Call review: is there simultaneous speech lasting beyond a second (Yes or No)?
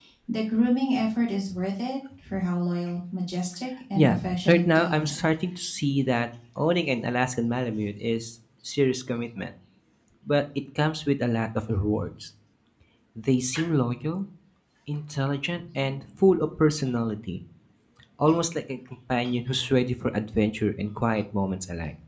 Yes